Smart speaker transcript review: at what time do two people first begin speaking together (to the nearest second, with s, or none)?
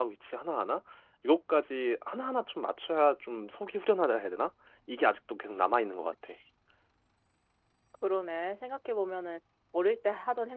none